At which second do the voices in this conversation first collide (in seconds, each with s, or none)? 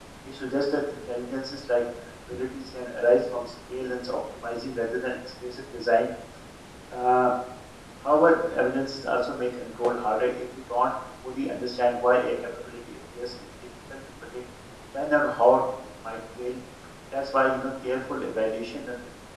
none